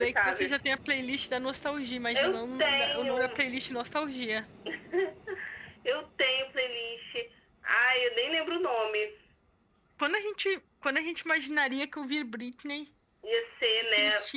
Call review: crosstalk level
present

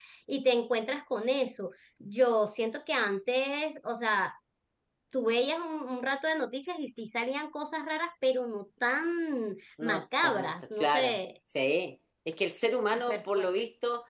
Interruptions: present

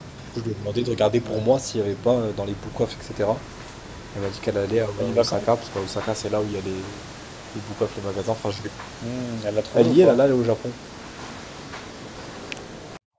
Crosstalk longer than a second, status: none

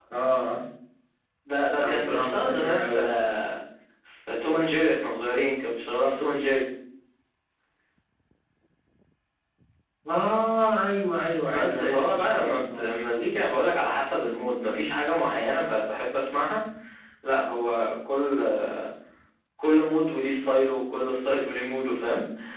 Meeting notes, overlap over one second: present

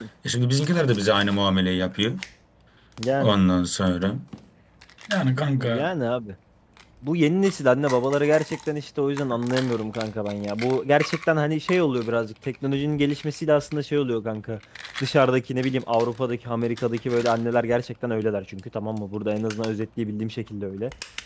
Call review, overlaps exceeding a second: none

